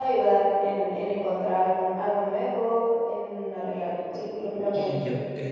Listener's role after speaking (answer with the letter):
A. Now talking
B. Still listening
A